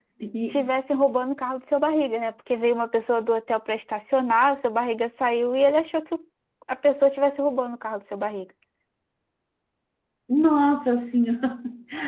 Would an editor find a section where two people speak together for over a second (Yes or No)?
No